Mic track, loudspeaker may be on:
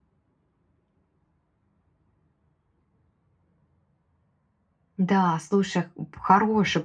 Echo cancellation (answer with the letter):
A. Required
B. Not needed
B